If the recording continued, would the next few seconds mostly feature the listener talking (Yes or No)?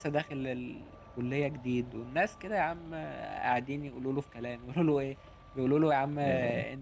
No